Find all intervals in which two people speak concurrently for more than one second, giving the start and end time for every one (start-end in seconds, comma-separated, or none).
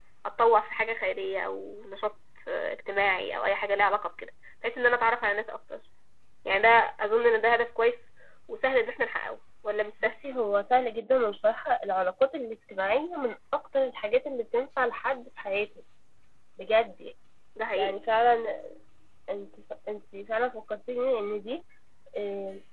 none